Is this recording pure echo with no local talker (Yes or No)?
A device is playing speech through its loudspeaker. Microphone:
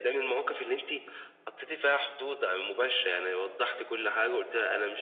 Yes